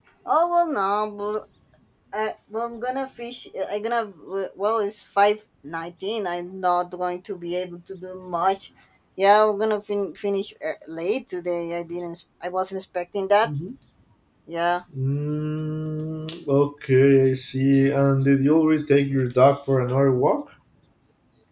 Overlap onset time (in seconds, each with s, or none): none